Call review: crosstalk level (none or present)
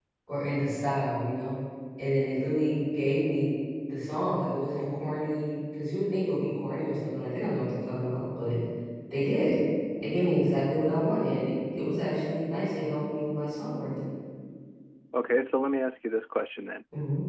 none